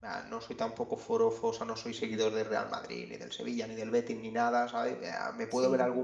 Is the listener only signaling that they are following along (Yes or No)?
Yes